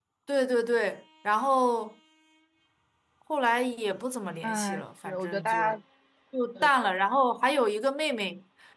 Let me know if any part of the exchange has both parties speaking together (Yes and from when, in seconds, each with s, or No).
Yes, from 4.4 s